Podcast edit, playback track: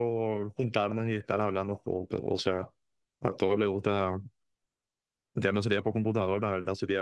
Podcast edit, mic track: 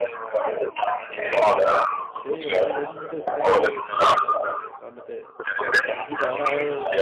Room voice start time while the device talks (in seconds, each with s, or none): 2.1 s